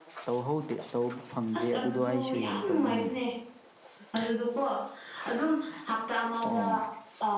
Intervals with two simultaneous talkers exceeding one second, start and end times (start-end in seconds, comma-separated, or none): 1.6-3.1